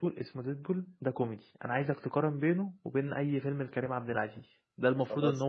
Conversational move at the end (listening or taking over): listening